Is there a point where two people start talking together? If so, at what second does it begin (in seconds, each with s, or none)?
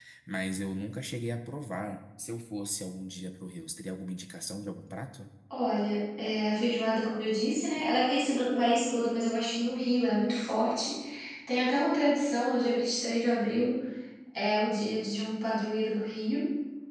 none